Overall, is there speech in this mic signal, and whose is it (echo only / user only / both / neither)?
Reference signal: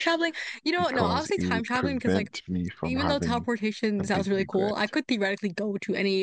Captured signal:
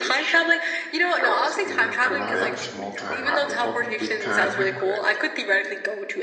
both